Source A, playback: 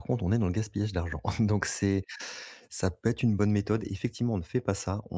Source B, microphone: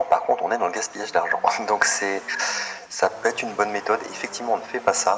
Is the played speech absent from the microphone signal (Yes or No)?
No